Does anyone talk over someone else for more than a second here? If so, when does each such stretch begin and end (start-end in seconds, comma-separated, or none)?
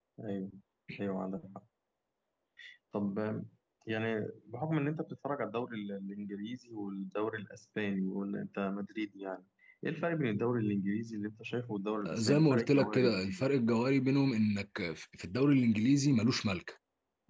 12.1-13.4